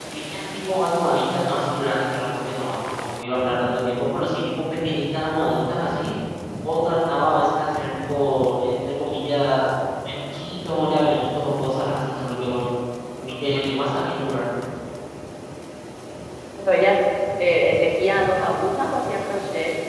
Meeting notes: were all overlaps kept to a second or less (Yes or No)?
Yes